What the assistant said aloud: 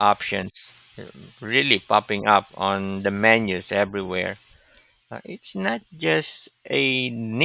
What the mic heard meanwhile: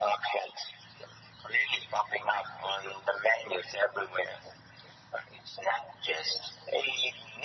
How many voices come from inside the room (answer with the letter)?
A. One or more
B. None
B